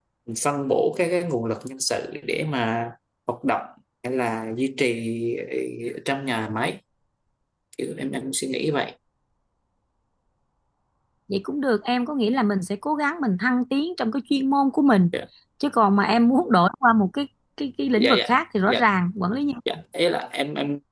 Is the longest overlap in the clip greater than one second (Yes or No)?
No